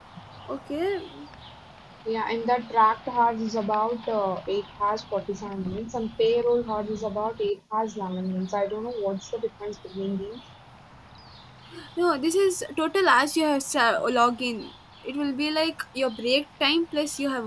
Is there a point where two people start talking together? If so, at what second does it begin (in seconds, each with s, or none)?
none